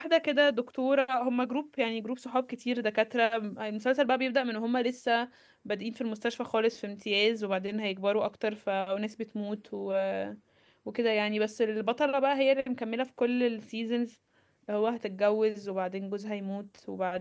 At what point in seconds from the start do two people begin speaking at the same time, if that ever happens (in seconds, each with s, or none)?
none